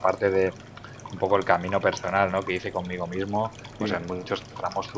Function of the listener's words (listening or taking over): listening